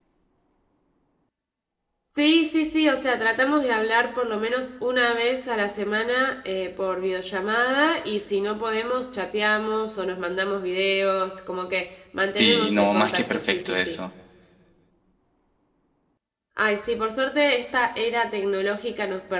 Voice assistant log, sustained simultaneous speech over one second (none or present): present